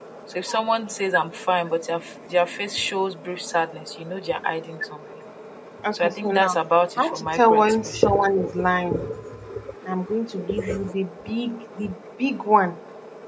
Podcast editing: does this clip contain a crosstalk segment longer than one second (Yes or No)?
Yes